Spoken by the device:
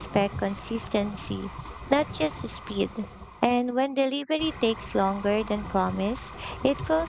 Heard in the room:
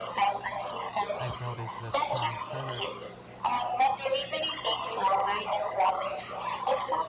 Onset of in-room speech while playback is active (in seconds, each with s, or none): 1.1 s